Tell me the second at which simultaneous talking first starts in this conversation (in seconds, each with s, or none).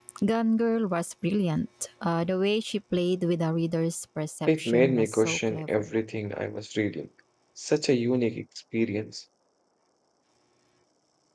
4.5 s